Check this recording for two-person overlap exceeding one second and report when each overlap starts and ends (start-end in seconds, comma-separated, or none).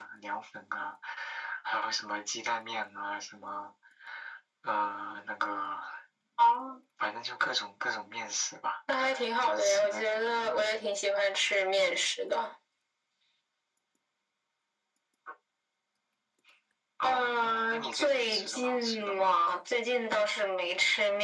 9.4-11.0, 17.0-19.3